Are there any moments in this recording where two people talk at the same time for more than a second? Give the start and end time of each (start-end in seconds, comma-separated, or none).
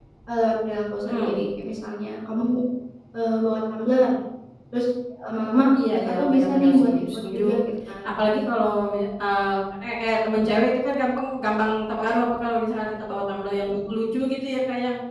5.9-7.4